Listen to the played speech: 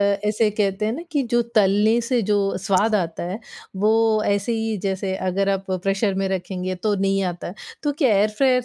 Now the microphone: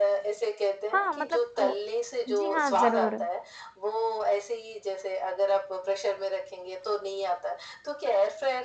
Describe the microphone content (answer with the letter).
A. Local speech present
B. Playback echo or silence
A